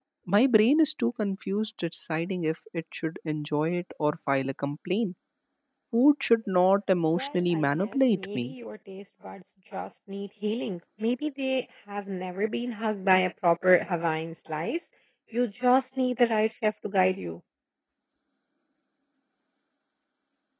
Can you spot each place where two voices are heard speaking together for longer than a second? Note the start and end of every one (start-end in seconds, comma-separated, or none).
7.1-8.5